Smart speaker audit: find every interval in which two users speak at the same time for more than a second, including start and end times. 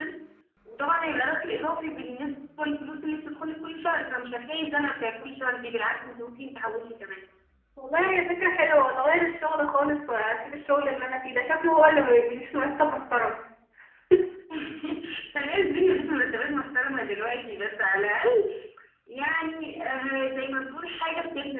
none

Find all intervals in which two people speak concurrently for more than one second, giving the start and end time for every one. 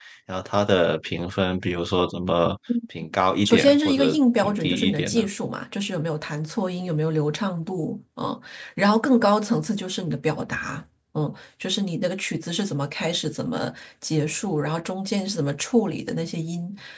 3.4-5.2

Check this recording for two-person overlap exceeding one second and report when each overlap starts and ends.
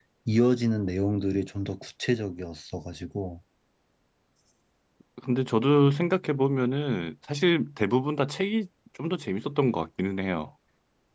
none

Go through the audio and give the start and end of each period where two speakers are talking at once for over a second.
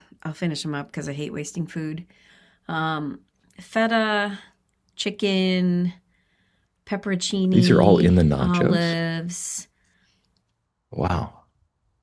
7.5-8.9

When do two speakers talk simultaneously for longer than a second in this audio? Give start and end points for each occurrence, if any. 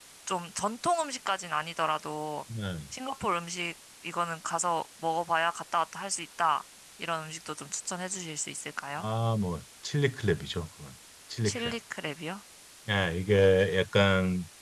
none

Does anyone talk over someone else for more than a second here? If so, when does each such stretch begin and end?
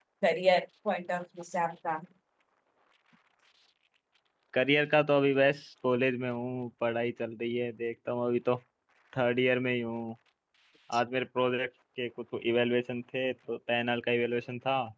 none

